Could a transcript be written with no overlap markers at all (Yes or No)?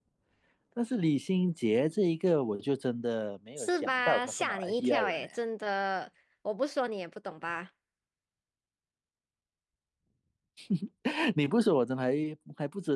No